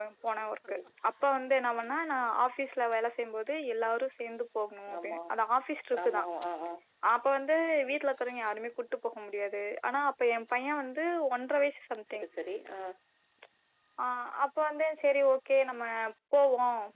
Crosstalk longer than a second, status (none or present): none